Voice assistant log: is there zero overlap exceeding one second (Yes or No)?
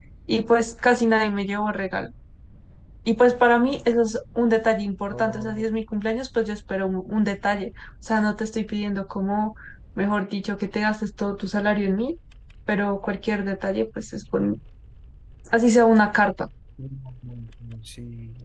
Yes